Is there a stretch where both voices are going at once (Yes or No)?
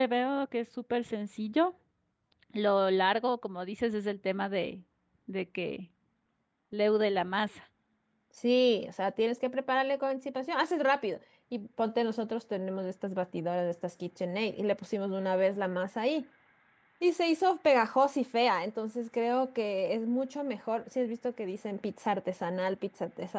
No